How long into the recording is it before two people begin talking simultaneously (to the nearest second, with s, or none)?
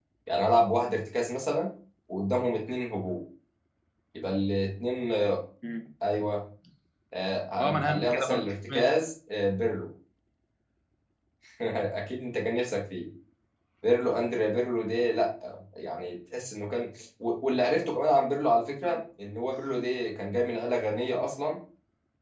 8 s